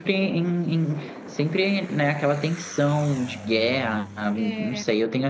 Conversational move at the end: listening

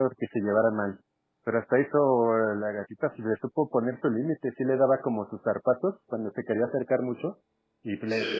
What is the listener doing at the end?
listening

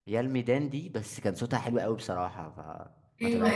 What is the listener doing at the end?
taking over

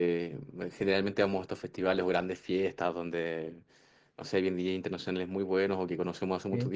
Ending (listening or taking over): listening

